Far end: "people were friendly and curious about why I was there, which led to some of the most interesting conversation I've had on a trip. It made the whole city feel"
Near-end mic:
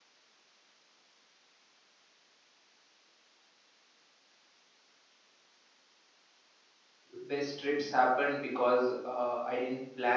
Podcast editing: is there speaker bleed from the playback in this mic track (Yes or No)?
No